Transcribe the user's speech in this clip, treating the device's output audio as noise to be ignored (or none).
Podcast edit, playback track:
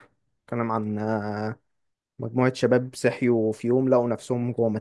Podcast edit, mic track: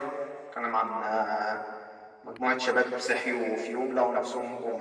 none